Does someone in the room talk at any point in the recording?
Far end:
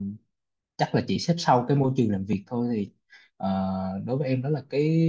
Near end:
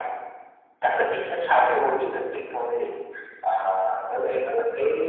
No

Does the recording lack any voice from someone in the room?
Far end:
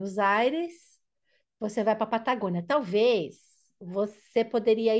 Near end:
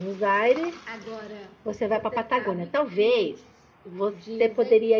No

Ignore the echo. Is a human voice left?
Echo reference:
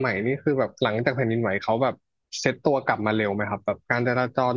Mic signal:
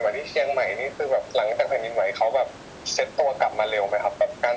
No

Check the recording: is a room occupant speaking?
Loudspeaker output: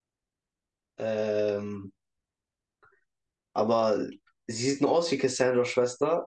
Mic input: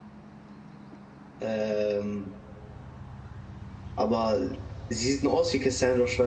No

